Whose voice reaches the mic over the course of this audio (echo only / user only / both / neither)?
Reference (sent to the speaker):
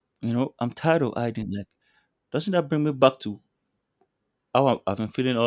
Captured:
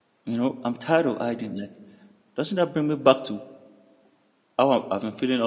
echo only